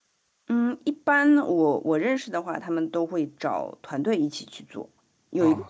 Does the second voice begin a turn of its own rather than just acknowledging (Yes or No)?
No